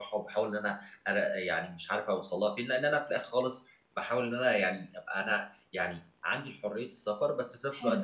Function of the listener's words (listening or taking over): listening